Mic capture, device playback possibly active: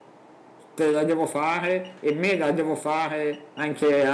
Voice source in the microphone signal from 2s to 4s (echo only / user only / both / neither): user only